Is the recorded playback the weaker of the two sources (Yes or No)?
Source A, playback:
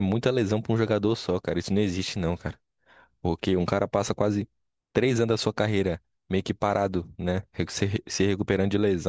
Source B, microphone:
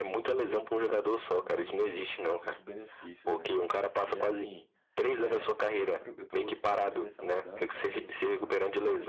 No